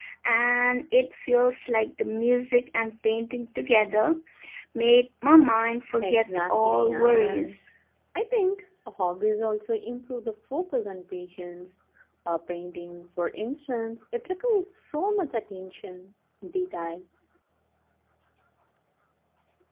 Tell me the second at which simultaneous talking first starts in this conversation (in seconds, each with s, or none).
6.0 s